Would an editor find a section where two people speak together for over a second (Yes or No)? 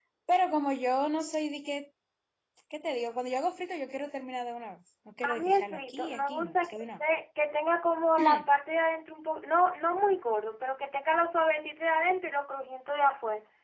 Yes